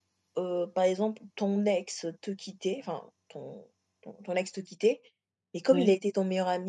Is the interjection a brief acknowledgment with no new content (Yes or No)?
Yes